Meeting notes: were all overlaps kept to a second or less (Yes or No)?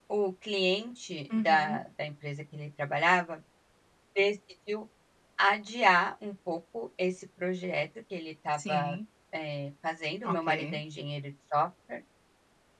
Yes